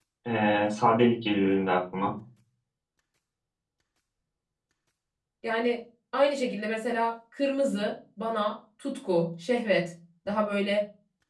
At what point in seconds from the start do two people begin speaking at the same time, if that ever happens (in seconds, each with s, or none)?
none